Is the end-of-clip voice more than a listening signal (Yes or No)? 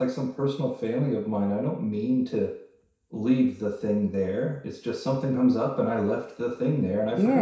Yes